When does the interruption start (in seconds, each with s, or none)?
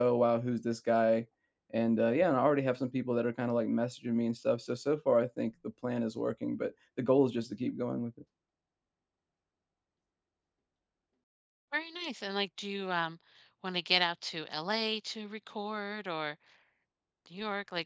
none